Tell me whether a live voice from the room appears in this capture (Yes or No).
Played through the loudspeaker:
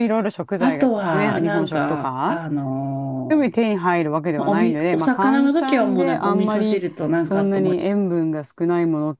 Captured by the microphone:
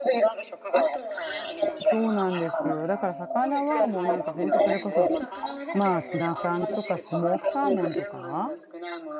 Yes